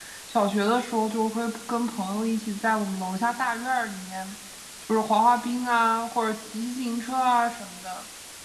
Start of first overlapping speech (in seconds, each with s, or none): none